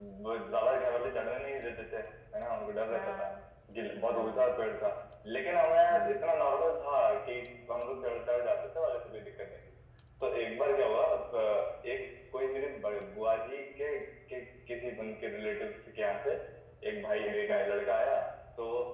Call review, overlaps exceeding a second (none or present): none